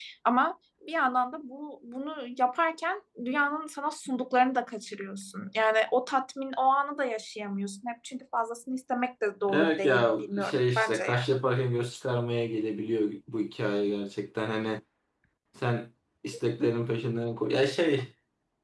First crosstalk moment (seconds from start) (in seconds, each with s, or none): 9.5 s